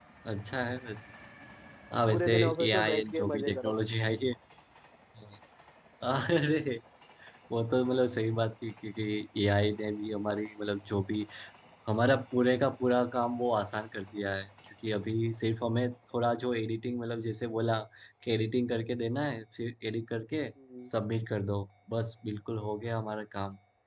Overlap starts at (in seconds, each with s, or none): 2.1 s